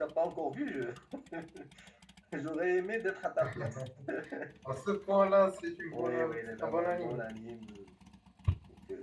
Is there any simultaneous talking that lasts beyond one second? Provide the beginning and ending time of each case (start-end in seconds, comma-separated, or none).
5.9-7.2